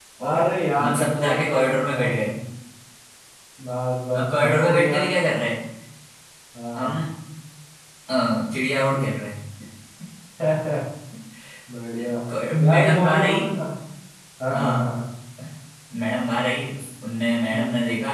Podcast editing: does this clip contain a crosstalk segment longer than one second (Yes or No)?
Yes